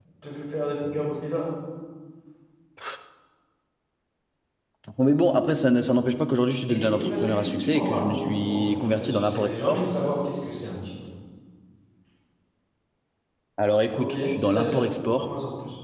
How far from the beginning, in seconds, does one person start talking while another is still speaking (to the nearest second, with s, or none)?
7 s